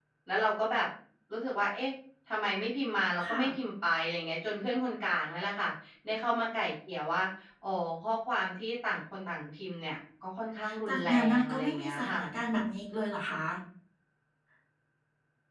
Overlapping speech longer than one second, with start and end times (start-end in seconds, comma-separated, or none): 10.9-12.2